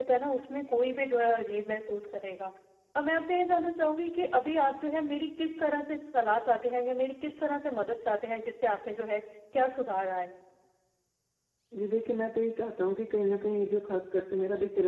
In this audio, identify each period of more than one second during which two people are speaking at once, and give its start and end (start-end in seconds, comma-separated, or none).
none